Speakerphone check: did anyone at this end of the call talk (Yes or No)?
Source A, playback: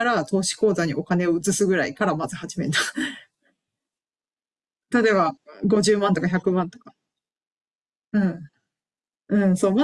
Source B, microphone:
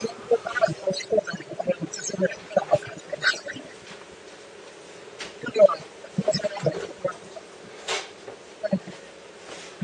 No